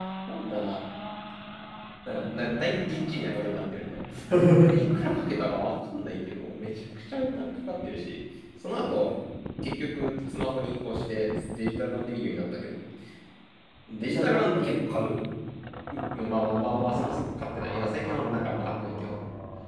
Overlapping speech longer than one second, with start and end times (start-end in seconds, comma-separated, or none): none